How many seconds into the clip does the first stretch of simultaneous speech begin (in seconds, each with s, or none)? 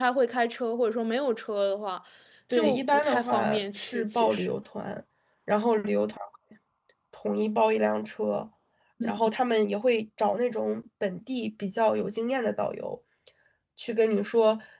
2.5 s